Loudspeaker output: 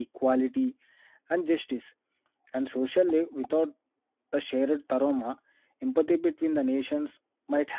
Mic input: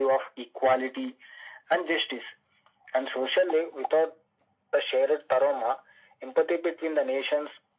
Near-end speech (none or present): none